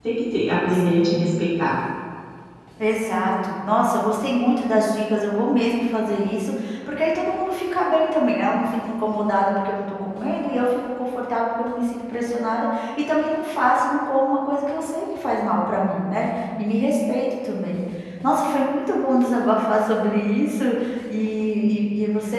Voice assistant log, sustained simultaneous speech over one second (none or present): none